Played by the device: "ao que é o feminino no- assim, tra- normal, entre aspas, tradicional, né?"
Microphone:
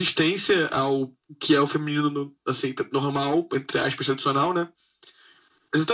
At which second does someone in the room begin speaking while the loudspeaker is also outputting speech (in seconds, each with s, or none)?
none